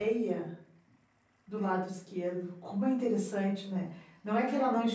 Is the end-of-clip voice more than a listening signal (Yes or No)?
No